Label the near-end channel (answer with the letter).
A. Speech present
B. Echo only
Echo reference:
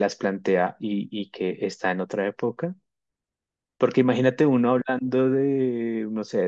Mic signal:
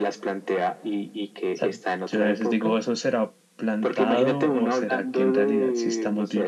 A